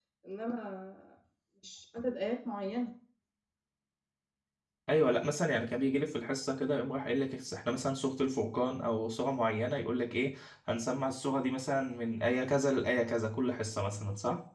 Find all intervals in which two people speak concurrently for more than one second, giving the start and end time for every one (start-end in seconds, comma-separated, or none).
none